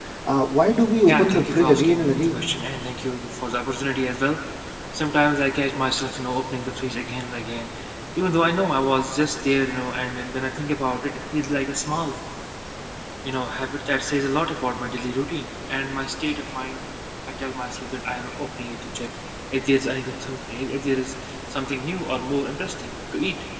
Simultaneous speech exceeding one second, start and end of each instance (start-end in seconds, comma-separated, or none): 1.1-2.5